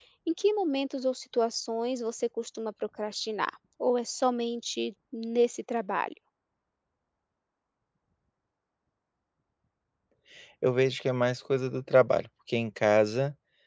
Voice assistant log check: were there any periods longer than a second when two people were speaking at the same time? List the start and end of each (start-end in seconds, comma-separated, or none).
none